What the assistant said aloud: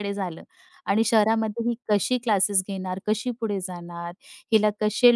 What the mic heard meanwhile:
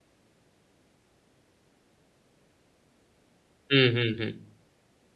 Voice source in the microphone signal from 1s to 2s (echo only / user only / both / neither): neither